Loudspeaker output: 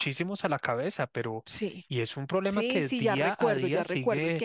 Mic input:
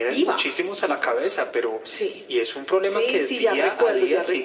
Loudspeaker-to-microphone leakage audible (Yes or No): Yes